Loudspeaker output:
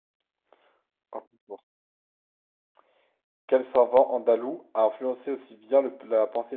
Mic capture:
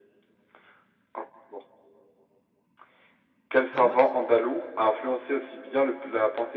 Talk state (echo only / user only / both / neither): both